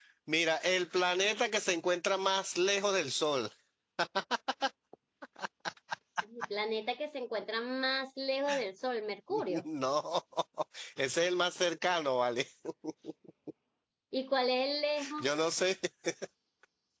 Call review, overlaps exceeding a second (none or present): none